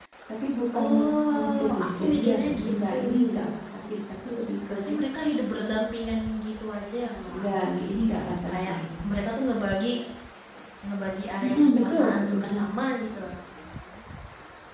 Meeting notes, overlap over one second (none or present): present